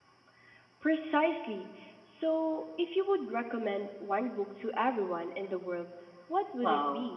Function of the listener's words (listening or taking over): taking over